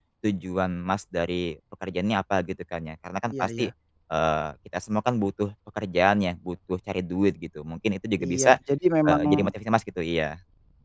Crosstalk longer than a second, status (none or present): none